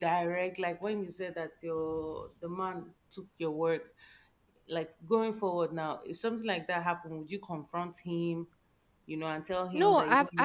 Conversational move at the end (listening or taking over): taking over